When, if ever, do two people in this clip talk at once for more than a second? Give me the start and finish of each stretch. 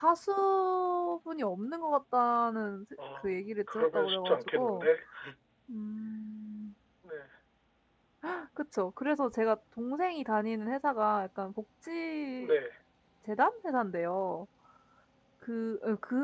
3.2-4.9

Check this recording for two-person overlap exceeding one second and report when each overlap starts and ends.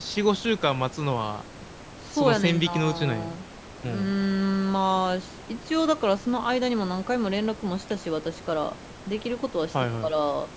2.1-3.4

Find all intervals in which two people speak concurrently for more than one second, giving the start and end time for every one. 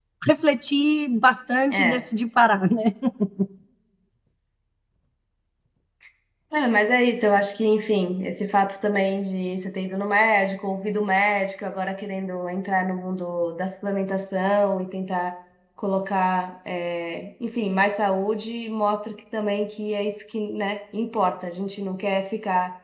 none

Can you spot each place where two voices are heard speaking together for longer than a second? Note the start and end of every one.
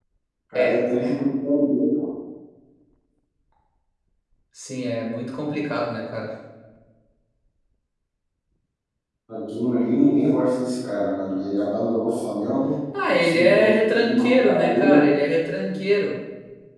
13.2-15.0

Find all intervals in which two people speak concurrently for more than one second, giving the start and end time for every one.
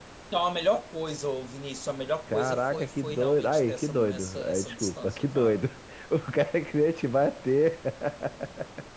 2.3-5.6

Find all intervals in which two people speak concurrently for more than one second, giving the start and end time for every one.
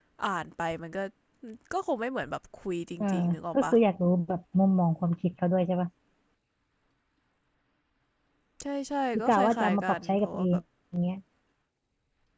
9.2-10.6

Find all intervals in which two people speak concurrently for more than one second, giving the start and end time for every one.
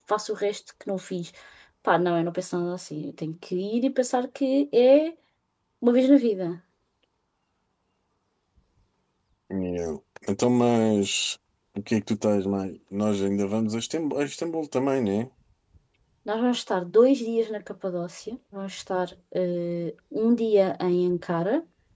none

